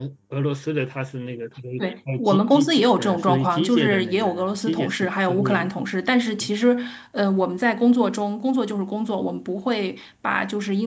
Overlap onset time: 2.2 s

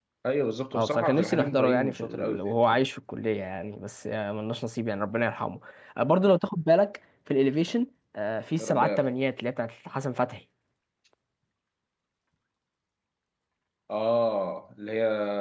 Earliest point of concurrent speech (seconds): 0.7 s

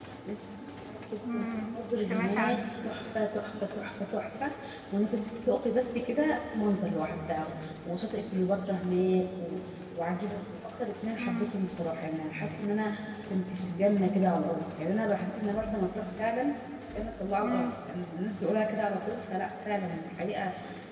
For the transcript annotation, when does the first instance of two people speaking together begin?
1.2 s

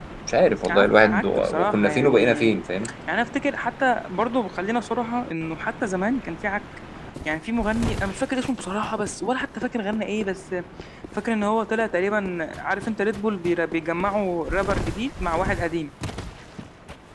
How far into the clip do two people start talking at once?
0.7 s

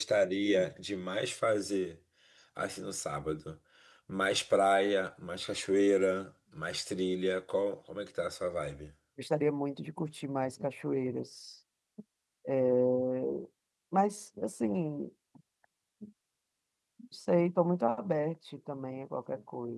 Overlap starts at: none

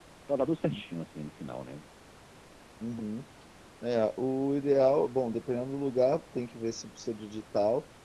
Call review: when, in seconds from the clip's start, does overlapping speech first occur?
none

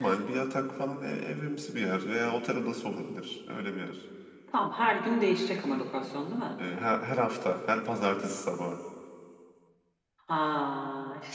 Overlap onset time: none

